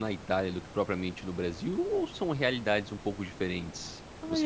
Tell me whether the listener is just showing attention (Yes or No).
No